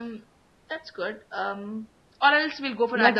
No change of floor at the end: No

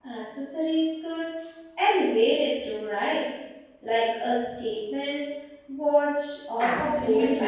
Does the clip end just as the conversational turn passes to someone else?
Yes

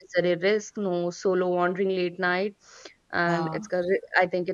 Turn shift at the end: No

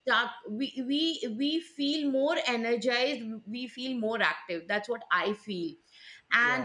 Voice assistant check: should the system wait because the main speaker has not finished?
Yes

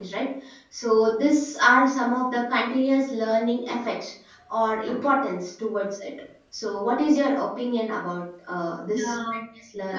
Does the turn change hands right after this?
Yes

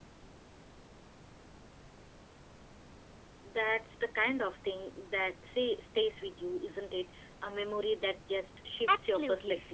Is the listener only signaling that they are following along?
No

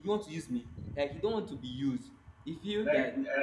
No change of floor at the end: No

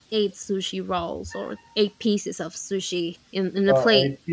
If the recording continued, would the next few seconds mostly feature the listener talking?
Yes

